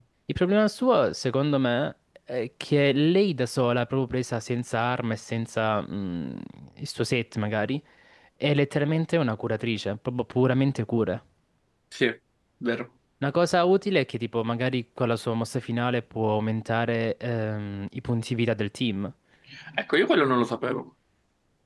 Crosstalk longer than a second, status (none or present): none